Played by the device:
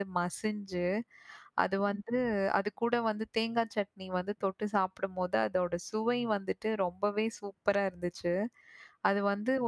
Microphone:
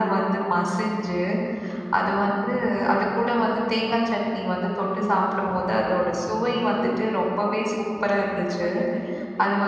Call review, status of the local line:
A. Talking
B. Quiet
A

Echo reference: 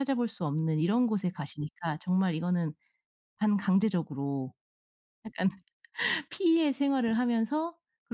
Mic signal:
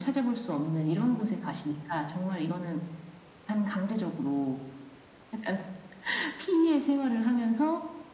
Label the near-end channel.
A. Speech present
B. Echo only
B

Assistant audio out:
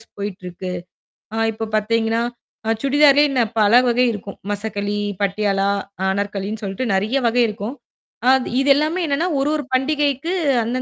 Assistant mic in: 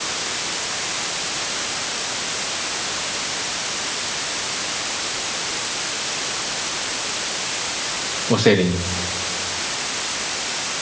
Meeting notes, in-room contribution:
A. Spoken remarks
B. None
A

